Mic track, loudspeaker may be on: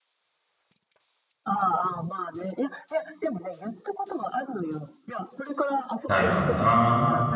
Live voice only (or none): ないかもな。